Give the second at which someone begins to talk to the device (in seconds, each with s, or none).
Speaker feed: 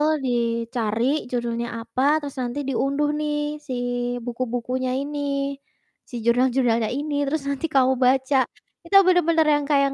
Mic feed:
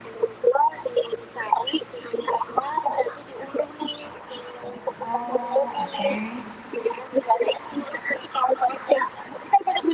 5.0 s